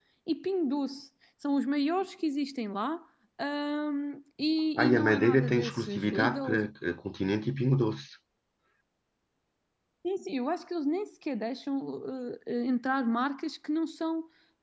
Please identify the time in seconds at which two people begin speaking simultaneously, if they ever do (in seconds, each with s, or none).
4.8 s